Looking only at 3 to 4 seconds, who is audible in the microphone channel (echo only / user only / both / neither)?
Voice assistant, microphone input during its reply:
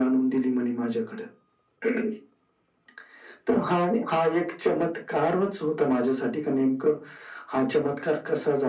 echo only